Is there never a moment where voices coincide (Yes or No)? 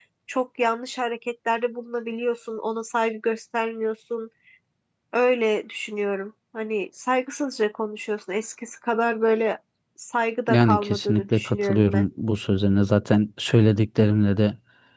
No